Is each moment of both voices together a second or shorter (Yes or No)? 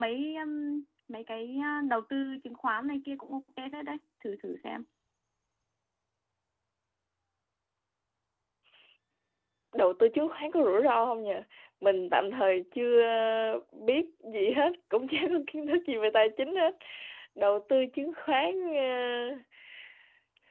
Yes